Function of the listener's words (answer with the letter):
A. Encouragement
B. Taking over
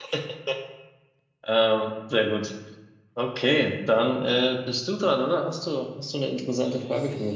B